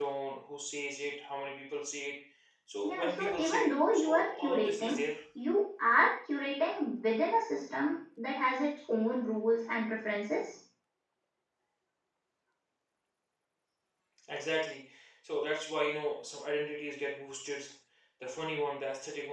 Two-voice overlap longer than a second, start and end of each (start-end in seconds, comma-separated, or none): 2.8-5.0